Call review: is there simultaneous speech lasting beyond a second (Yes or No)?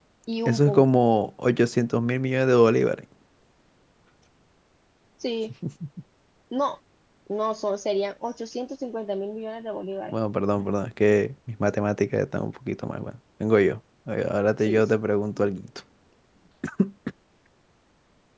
No